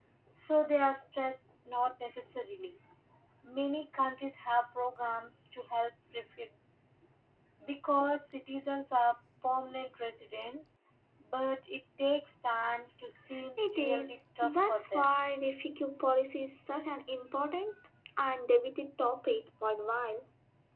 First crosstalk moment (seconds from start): 14 s

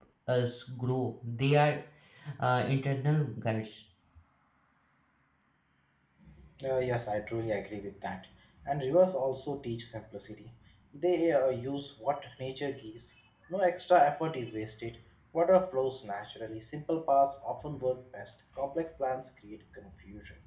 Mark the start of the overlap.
none

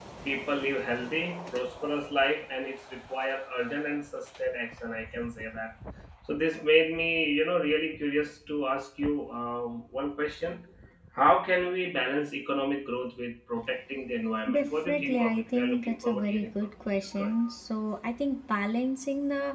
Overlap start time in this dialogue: 14 s

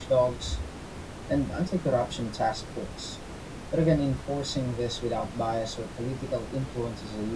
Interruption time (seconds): none

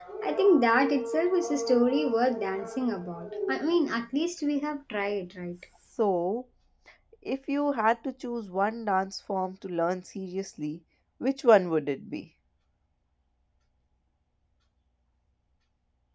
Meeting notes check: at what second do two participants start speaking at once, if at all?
none

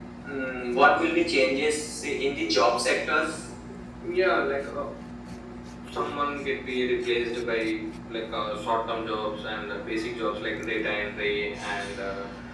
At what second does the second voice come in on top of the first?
none

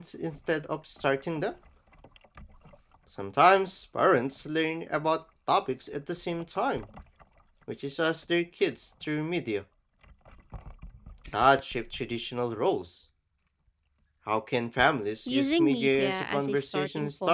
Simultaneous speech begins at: 15 s

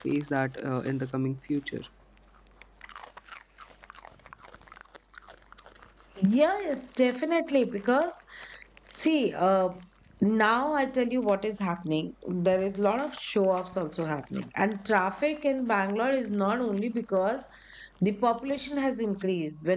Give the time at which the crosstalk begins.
none

